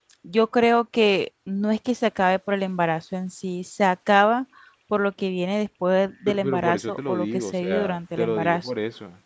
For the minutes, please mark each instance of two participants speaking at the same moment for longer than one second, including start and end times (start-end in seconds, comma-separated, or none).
6.3-8.7